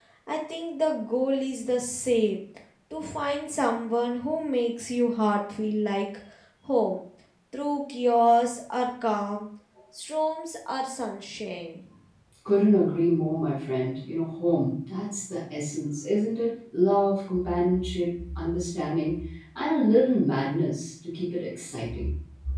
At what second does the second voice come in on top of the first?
none

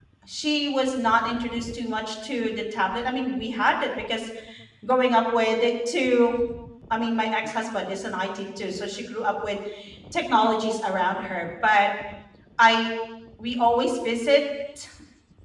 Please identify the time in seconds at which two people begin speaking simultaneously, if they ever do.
none

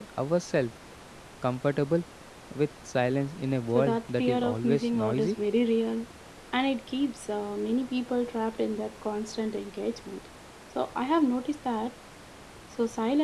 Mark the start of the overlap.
3.8 s

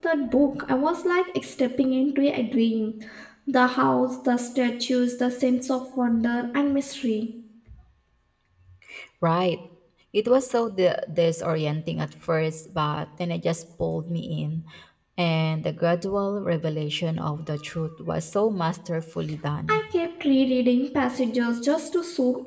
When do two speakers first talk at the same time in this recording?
none

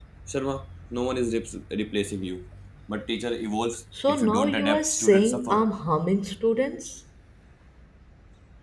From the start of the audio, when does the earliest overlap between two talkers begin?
3.9 s

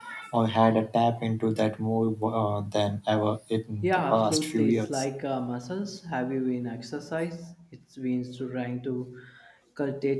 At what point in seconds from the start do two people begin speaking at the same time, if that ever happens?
3.8 s

